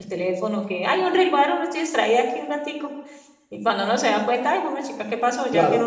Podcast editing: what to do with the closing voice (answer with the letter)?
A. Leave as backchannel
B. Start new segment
B